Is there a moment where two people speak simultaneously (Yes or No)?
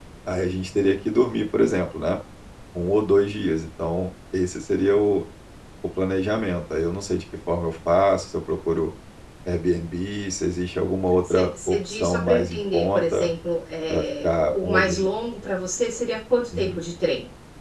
Yes